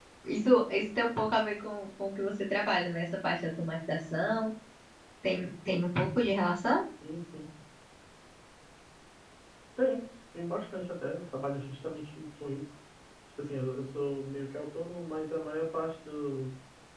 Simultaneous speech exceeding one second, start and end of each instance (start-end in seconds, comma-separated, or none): none